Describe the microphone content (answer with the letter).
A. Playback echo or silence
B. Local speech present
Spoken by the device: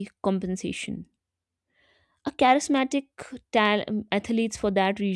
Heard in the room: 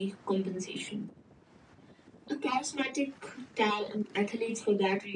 A